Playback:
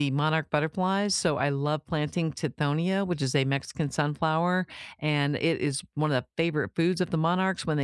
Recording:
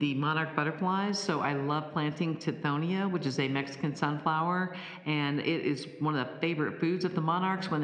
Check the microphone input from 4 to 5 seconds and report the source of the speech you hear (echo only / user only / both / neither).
echo only